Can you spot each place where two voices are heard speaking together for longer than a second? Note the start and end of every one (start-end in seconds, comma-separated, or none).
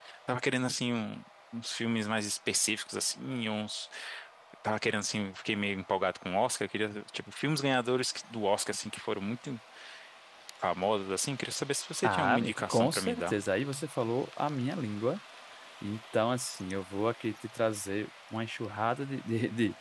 12.0-13.3